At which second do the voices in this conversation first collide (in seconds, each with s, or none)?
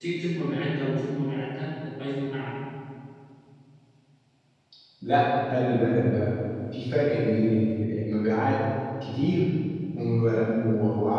none